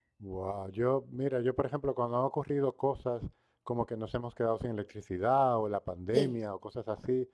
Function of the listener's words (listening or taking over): listening